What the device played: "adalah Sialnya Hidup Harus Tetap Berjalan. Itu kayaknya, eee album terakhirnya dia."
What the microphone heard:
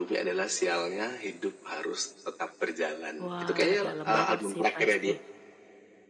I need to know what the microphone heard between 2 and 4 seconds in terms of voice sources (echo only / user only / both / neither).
both